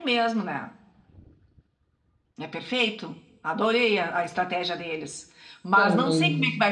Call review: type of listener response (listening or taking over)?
listening